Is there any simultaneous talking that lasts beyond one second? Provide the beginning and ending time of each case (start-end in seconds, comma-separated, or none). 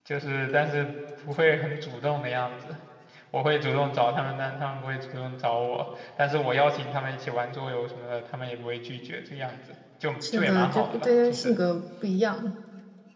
10.2-11.6